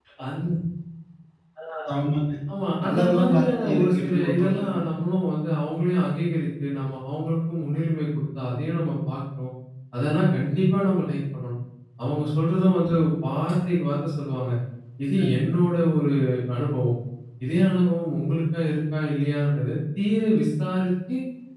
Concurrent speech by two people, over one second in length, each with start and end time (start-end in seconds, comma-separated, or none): 2.8-4.8